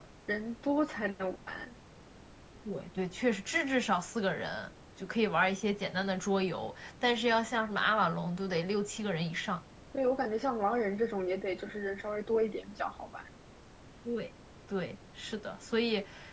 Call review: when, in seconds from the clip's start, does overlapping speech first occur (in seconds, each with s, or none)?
none